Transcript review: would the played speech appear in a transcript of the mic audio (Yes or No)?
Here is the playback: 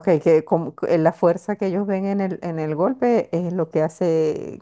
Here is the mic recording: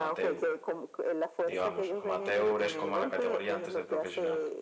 Yes